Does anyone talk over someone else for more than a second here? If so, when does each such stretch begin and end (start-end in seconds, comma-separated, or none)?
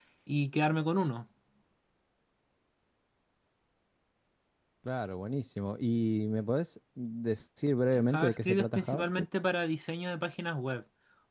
7.9-9.2